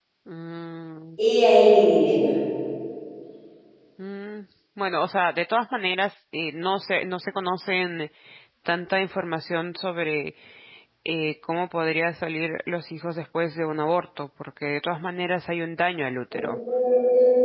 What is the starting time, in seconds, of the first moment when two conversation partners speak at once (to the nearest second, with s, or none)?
none